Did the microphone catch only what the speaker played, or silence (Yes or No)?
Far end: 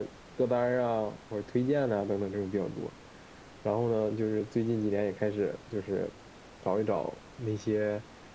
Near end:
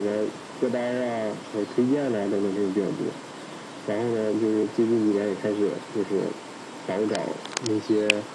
Yes